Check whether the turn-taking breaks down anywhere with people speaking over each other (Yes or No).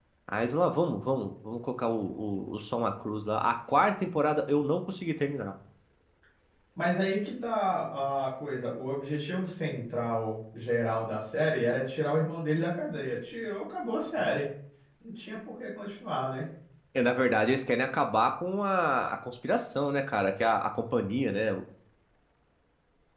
No